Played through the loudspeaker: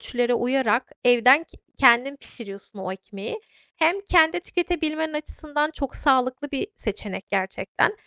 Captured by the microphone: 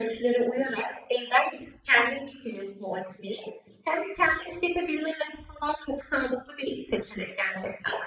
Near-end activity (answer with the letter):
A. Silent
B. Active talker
A